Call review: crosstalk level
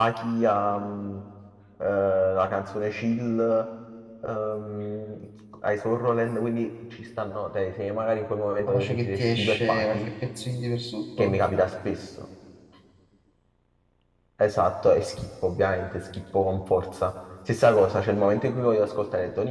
present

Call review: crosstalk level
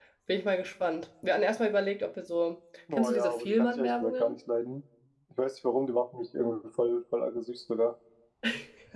present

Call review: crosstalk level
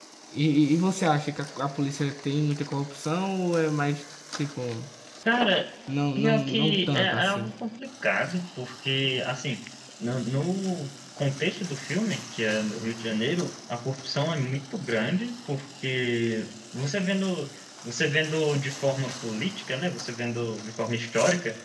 present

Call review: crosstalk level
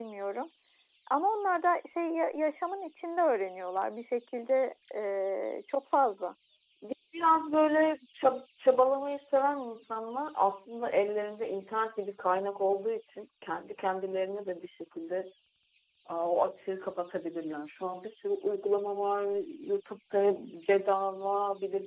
none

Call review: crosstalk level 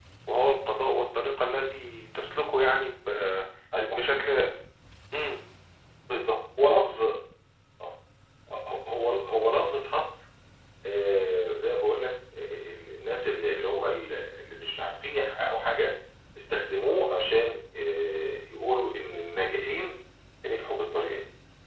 none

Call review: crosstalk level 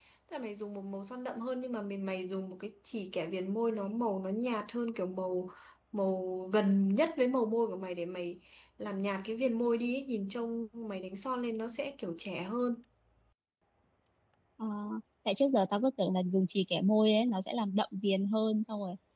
none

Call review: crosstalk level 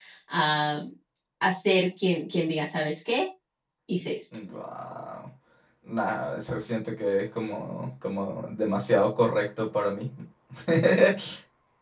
none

